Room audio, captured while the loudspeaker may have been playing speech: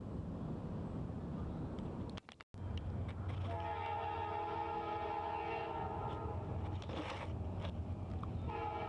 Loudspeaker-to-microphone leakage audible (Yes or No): No